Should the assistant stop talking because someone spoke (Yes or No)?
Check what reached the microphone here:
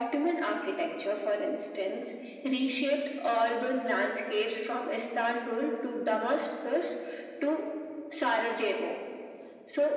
No